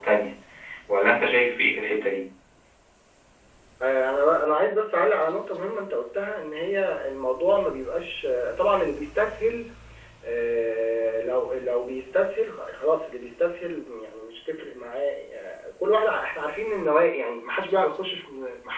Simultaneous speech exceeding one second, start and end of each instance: none

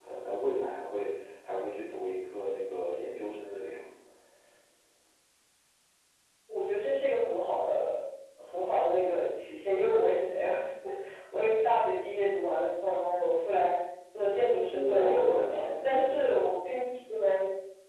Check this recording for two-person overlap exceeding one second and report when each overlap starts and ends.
14.9-16.4

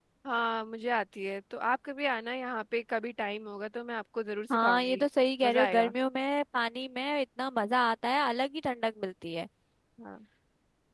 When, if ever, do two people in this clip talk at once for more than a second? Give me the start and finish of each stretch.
none

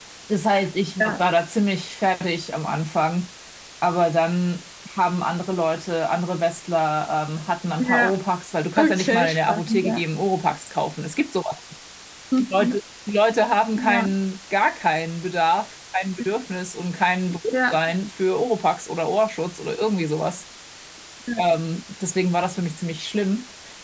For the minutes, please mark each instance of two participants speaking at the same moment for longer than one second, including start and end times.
8.8-10.0

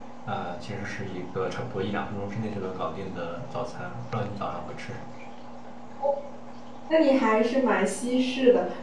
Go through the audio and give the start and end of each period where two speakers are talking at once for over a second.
none

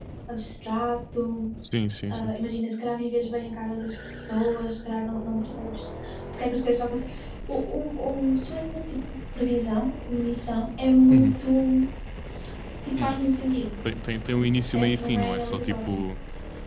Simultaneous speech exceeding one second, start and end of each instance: 14.6-16.0

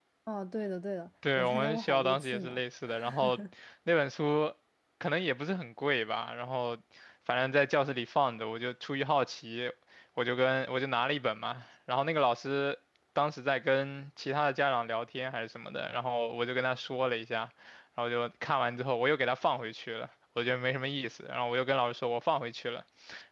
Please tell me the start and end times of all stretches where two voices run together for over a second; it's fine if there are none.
1.4-2.6

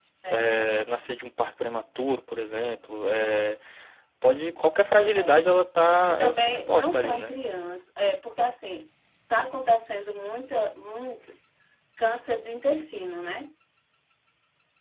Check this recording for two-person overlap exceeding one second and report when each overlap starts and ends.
6.1-7.3

